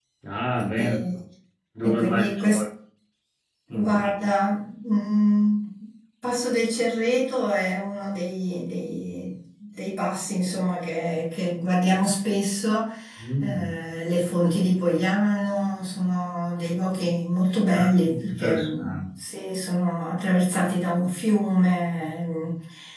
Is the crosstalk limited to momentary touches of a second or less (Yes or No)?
No